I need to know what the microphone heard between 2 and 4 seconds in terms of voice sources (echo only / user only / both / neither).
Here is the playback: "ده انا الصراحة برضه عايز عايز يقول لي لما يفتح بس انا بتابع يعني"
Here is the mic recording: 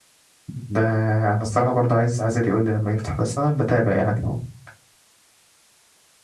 echo only